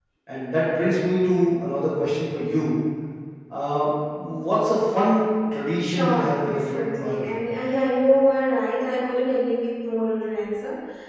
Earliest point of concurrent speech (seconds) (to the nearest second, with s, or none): 6 s